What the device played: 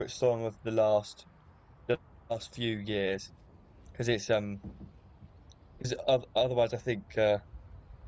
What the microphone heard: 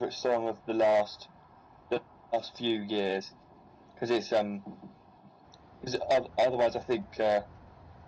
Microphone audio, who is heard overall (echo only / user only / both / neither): echo only